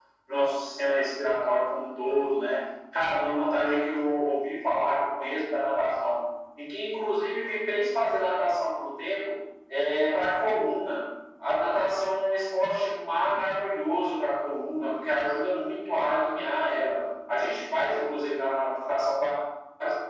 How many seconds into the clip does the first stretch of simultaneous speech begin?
none

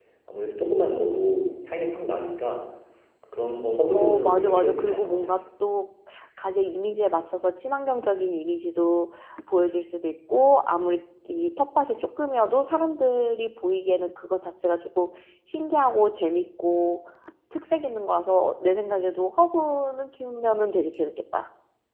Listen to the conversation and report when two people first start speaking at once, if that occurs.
4 s

